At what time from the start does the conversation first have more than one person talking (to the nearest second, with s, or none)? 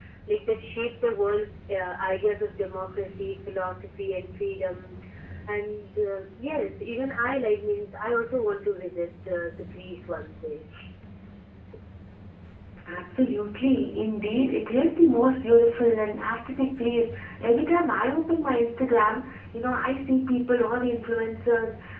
none